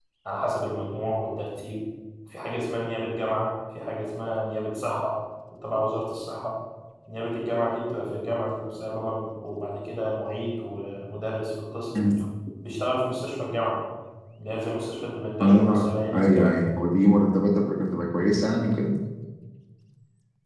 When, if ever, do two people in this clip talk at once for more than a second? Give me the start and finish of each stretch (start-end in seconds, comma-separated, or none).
15.4-16.7